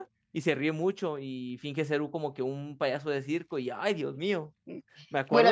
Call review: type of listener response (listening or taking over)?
taking over